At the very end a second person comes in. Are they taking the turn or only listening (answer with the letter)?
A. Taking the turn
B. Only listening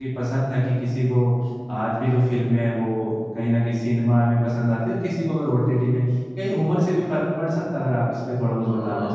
A